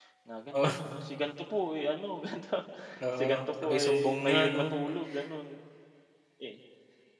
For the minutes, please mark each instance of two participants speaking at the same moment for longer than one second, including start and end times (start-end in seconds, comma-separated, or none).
3.2-4.6